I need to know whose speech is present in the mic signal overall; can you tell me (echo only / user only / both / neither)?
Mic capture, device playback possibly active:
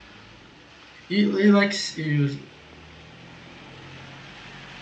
user only